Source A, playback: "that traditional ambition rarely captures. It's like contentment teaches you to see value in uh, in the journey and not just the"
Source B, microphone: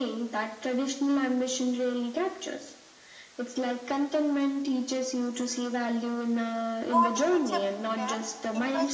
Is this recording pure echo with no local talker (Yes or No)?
No